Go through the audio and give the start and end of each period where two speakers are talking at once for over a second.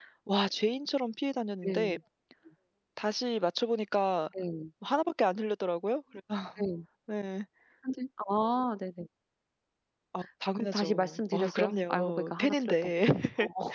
10.6-12.9

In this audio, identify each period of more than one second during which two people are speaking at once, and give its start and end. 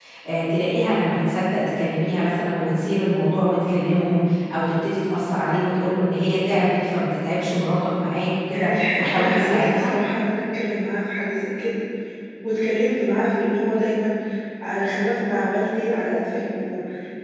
8.5-9.9

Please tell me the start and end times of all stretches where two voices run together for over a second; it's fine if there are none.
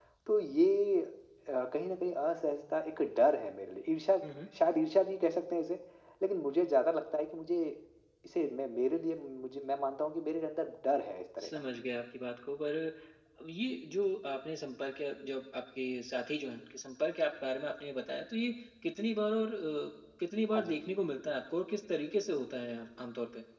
none

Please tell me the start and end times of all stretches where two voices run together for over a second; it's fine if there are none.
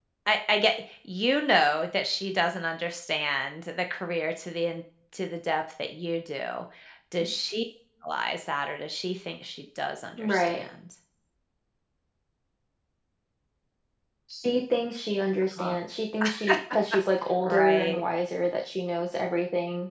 none

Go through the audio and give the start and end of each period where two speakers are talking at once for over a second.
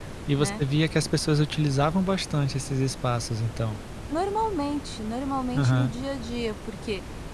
none

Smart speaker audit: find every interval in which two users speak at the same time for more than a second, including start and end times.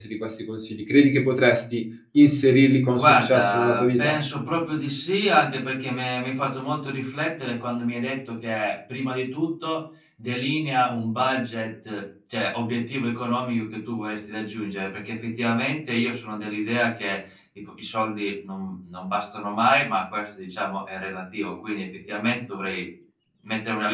2.9-4.2

